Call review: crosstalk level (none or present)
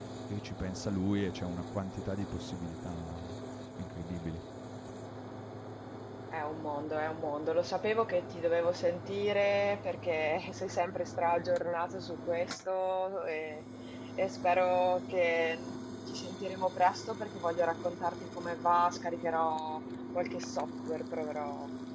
none